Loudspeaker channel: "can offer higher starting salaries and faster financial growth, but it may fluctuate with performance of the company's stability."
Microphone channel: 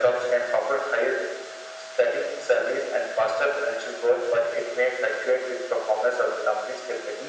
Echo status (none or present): present